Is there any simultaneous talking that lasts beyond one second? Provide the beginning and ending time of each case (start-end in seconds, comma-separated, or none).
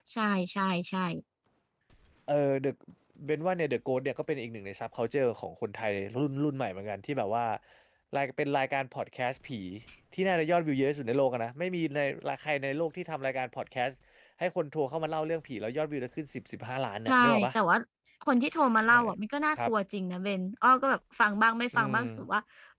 none